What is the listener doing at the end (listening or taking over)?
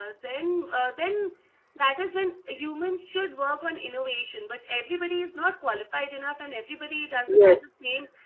listening